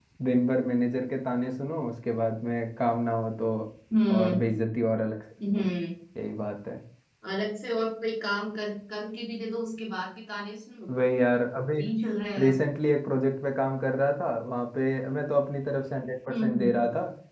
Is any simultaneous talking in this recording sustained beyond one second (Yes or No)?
No